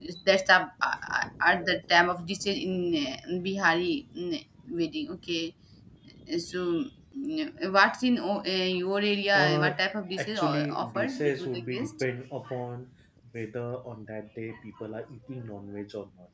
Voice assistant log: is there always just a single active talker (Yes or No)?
No